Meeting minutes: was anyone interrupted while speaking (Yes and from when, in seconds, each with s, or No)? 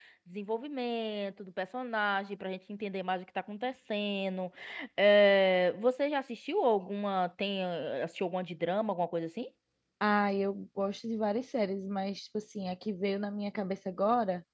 No